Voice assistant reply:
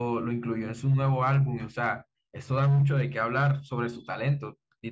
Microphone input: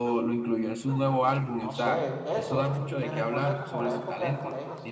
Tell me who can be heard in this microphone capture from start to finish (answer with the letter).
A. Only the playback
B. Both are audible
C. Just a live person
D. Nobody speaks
B